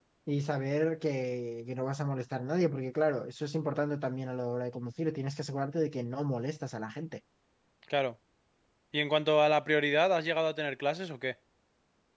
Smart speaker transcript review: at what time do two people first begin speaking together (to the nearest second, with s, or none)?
none